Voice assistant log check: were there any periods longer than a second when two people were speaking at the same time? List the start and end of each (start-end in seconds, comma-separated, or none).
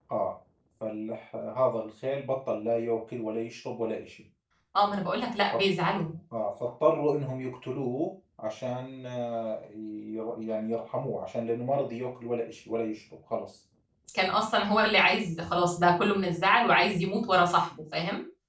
none